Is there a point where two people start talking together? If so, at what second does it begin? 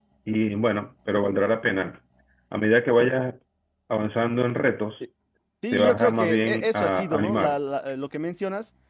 6 s

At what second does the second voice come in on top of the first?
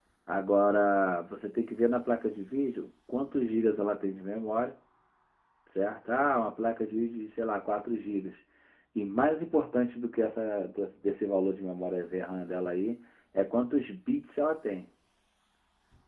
none

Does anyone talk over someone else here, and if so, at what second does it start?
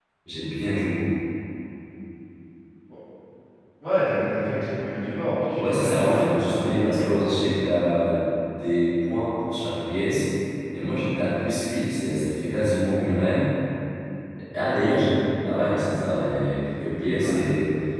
6 s

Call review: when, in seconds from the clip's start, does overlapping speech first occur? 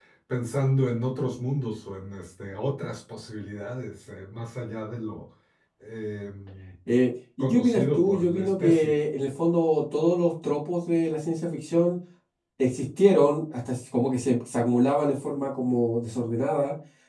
7 s

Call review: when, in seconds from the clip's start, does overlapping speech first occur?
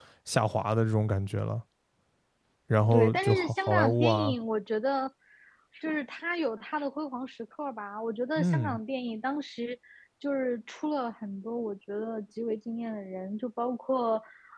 3 s

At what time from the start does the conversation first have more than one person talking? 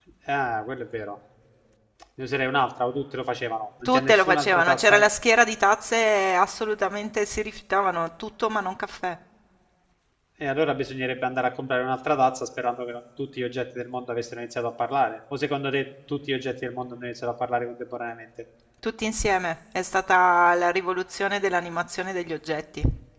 4 s

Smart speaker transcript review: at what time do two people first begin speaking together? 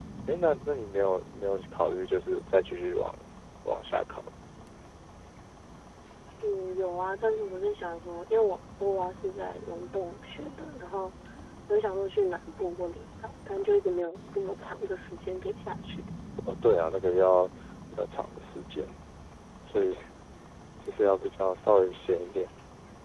none

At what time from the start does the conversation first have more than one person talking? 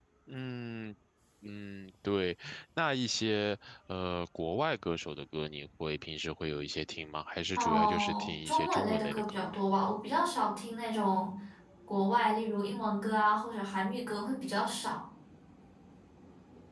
8 s

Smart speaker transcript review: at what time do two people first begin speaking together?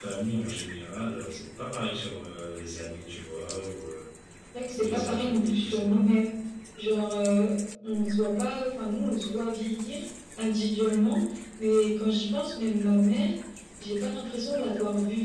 5 s

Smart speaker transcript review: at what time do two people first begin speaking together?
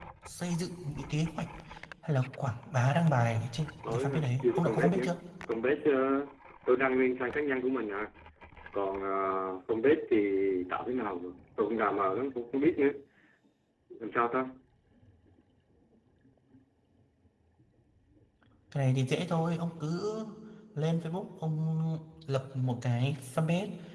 4 s

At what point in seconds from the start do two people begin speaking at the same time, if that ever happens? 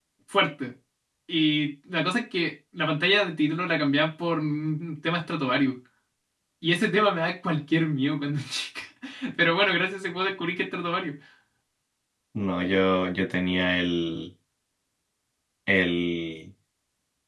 none

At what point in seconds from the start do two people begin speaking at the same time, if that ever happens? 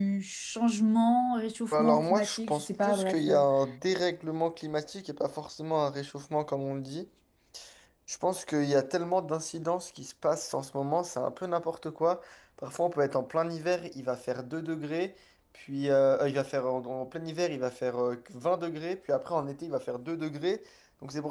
2 s

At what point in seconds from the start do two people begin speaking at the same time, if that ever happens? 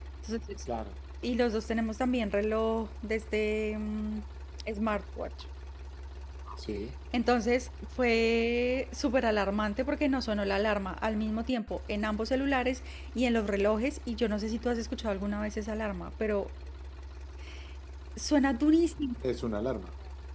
none

